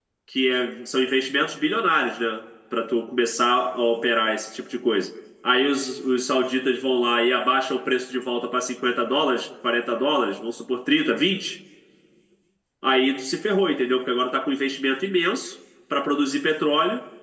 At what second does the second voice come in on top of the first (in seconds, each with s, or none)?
none